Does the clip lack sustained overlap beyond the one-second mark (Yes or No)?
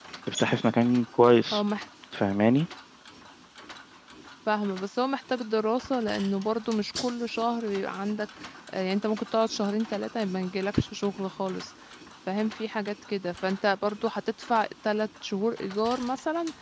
Yes